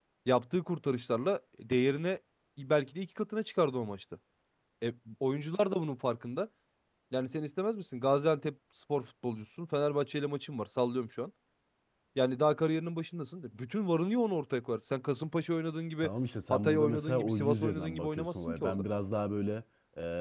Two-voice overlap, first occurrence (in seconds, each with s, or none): 16.5 s